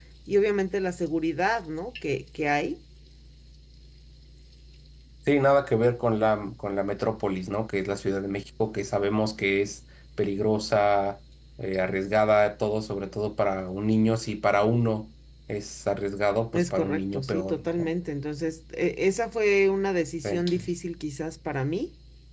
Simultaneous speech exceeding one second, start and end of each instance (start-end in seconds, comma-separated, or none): 16.5-17.9